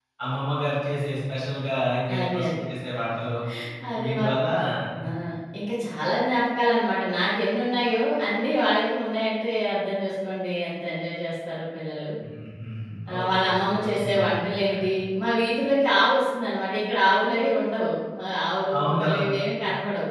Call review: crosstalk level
present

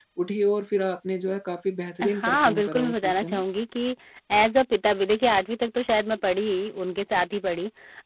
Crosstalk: present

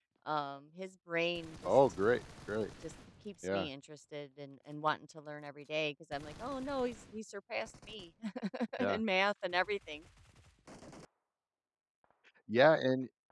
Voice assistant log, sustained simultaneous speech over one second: none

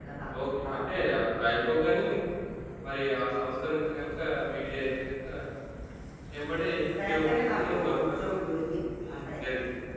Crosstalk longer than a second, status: present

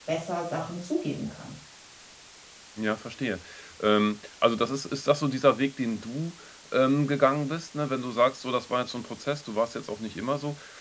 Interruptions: none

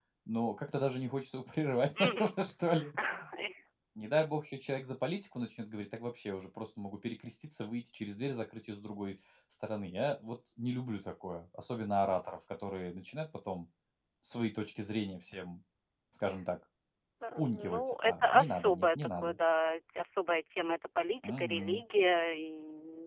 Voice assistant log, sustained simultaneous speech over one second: present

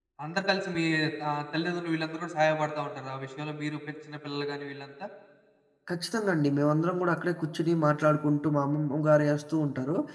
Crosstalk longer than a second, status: none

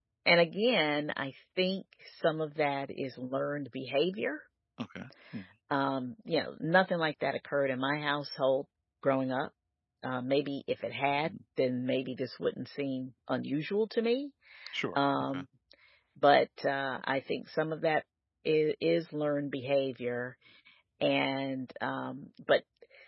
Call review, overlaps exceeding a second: none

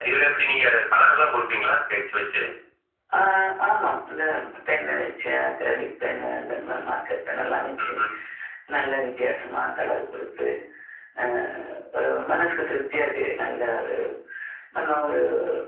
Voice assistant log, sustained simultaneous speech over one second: none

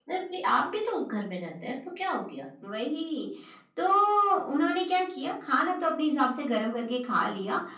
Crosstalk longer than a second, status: none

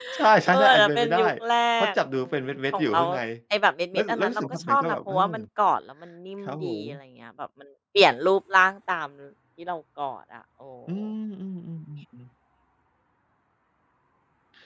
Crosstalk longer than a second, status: present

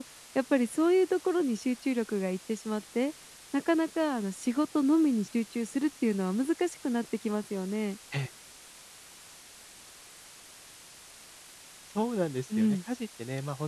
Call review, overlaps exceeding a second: none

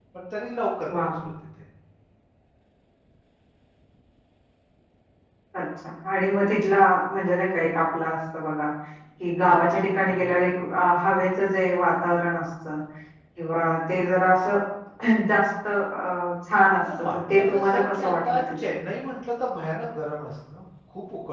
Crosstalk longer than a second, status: present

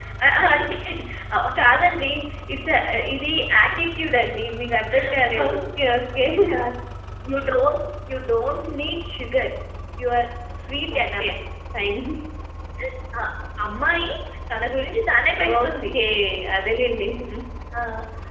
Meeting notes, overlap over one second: none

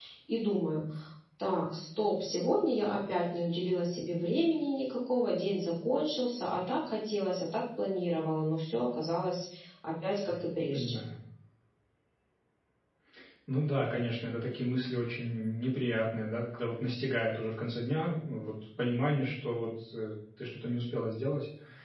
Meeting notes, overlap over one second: none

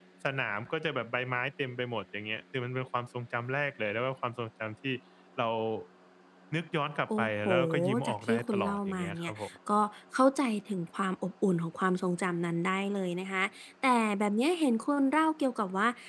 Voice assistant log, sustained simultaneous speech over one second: present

